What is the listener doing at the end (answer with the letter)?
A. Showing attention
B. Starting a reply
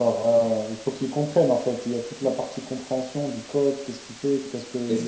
A